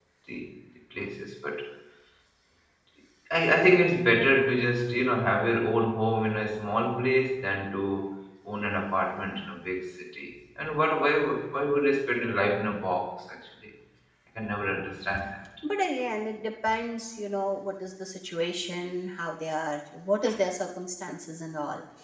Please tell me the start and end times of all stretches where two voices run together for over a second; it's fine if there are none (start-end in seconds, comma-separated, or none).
none